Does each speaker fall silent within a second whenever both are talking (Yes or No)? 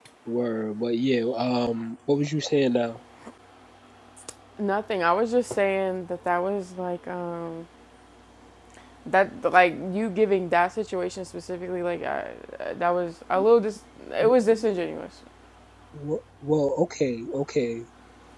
Yes